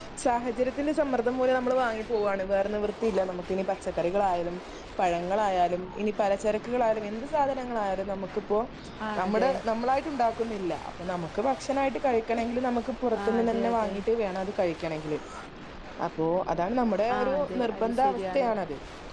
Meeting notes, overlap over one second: present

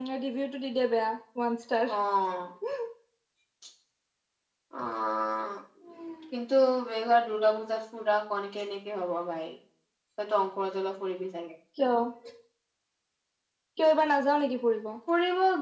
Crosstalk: none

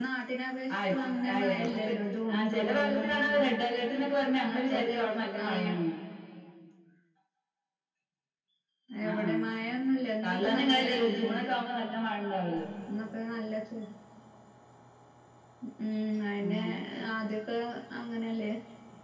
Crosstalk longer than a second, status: present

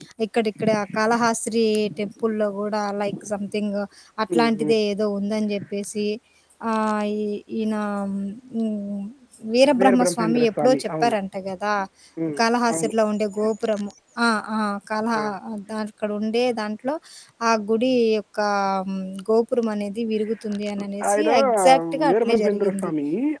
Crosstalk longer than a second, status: present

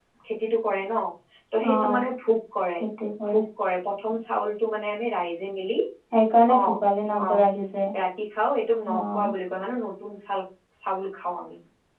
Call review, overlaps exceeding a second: none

